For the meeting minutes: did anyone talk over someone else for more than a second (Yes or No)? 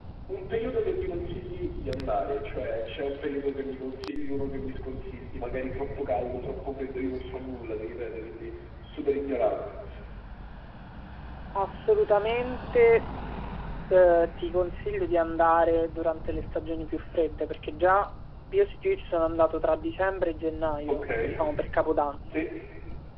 No